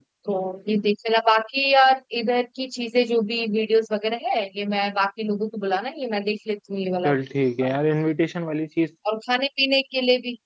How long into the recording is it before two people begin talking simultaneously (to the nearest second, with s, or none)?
none